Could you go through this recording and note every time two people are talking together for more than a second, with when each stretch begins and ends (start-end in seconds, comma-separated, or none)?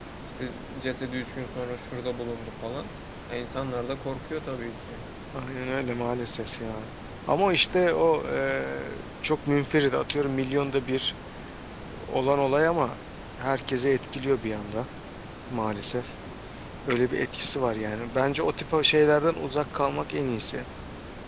none